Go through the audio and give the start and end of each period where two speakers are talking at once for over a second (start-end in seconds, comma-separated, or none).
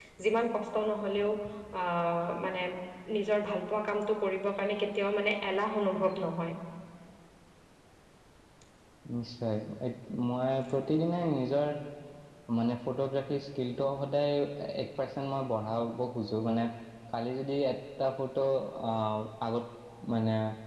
none